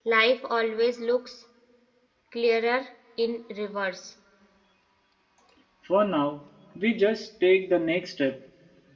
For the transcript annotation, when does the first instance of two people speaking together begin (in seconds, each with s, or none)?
none